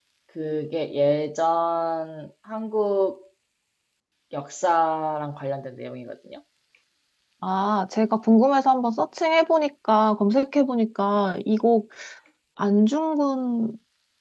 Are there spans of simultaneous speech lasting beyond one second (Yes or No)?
No